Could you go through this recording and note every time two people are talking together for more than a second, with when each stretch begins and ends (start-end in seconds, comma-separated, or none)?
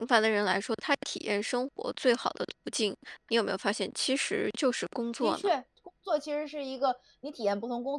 none